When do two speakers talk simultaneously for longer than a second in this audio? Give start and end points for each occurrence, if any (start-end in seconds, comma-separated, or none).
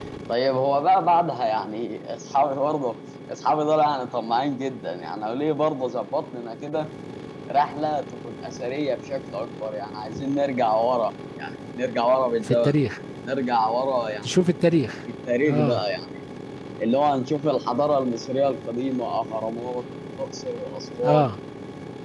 none